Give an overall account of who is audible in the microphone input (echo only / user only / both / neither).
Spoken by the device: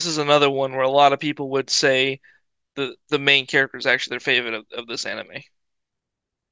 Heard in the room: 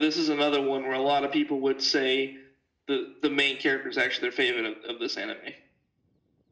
echo only